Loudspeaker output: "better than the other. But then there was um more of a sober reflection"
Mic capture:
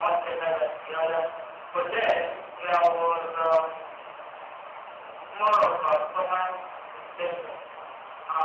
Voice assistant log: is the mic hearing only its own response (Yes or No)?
Yes